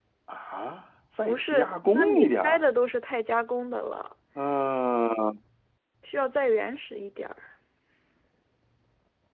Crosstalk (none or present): present